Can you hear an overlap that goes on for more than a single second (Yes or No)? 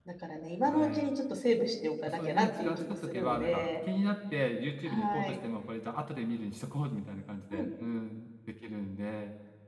Yes